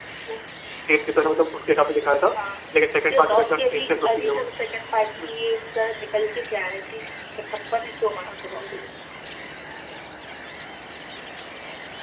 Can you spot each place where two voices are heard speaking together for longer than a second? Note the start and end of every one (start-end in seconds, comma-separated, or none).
3.1-4.4